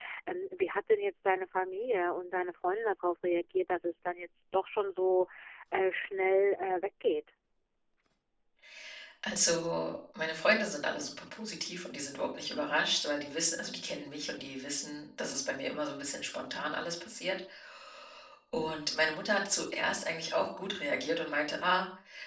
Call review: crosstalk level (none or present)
none